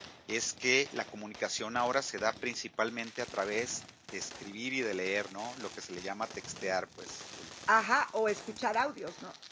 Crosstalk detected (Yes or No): No